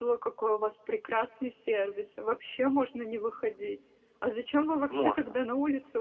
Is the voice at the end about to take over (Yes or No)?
No